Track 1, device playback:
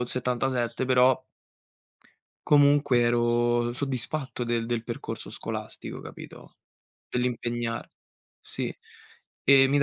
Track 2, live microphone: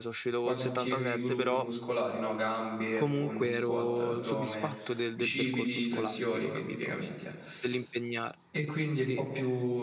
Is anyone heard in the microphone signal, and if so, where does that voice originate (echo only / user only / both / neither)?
both